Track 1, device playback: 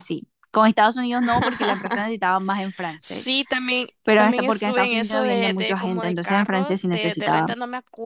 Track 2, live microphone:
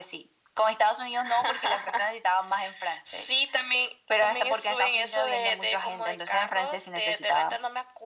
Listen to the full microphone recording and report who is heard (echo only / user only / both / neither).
echo only